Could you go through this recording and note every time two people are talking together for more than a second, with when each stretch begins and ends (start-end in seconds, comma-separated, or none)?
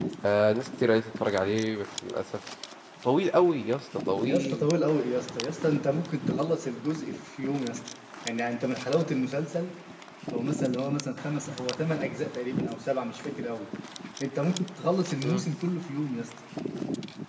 none